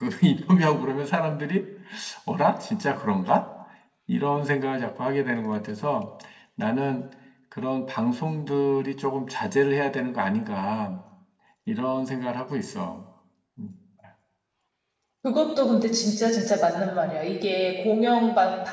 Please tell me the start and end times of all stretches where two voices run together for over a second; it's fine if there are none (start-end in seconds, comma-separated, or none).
none